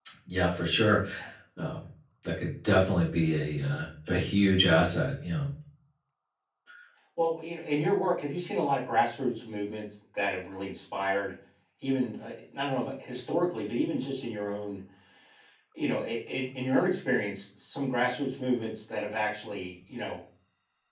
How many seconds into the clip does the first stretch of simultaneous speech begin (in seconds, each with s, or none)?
none